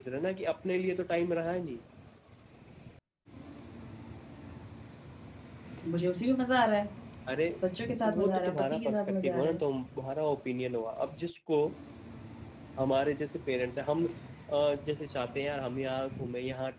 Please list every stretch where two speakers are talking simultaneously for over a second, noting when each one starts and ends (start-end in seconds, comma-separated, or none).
8.0-9.6